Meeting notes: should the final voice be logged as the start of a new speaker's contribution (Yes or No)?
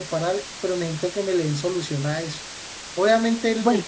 No